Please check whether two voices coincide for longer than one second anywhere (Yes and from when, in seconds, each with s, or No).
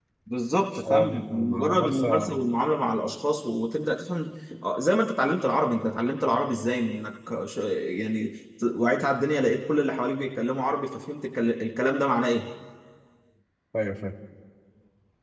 Yes, from 0.8 s